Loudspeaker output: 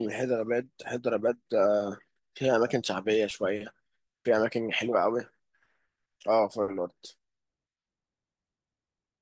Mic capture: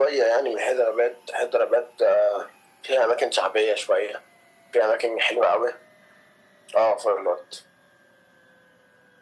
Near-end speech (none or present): none